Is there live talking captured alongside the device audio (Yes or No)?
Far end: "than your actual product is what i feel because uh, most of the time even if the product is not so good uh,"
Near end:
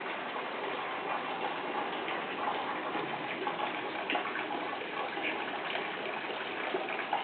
No